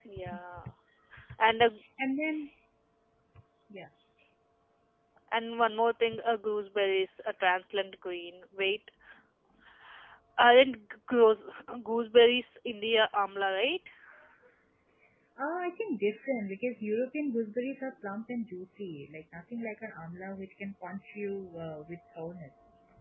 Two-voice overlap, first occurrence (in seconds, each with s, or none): none